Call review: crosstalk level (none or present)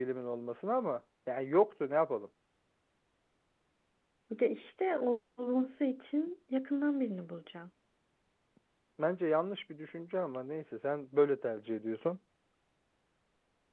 none